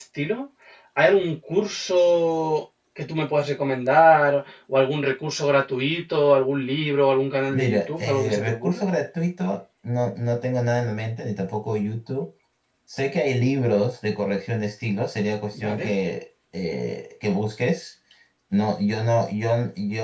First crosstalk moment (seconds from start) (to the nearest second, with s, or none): 8 s